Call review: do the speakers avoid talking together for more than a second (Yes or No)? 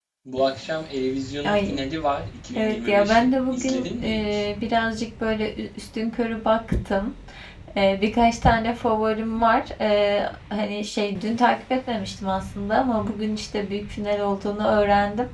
No